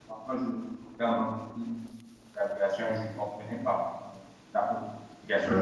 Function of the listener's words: taking over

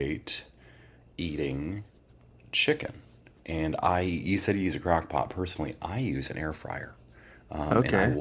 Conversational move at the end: listening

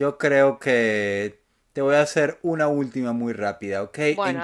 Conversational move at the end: listening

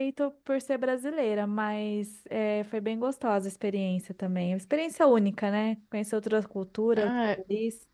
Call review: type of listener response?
taking over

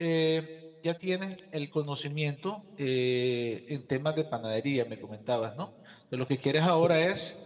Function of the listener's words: listening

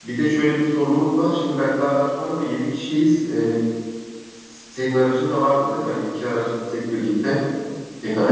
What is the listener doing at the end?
taking over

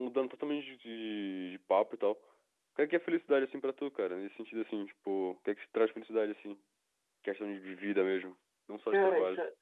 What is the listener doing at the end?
taking over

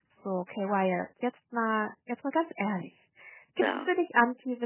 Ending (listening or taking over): listening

